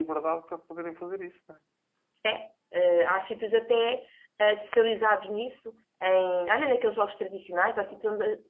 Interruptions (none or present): none